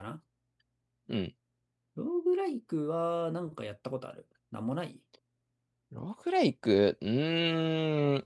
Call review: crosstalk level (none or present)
none